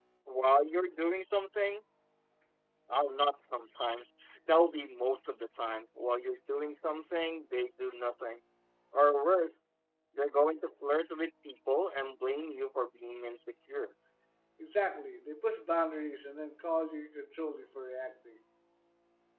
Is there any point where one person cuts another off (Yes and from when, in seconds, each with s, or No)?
No